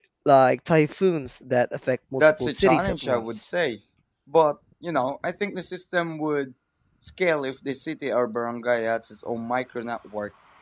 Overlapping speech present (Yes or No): Yes